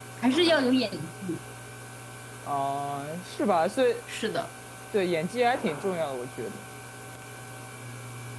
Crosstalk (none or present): none